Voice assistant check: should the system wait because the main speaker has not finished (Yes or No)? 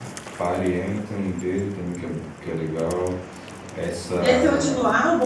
No